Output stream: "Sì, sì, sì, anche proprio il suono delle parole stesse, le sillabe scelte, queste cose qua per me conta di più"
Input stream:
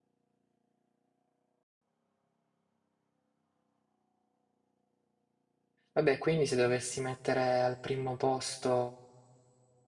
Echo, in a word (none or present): none